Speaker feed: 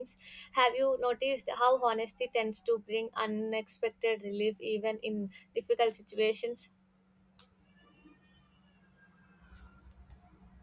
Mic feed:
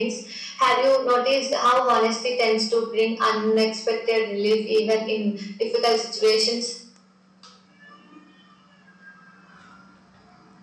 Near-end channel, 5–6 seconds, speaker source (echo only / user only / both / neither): echo only